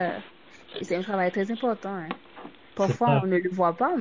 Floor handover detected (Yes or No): No